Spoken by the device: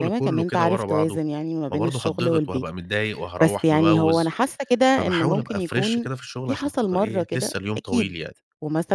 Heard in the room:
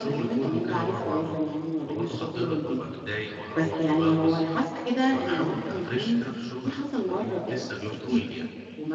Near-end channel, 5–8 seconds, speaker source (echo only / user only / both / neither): echo only